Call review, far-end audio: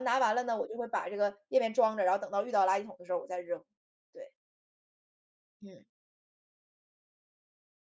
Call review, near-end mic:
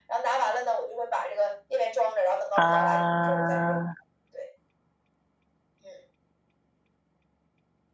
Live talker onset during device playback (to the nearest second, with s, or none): 3 s